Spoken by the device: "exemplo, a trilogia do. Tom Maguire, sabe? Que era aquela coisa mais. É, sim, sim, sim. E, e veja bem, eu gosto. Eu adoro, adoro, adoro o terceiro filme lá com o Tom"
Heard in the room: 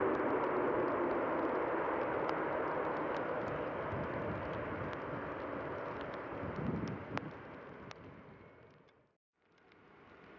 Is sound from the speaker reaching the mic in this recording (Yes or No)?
No